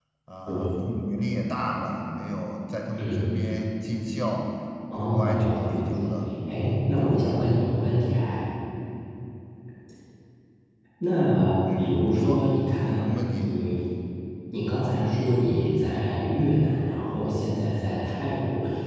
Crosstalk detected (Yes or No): Yes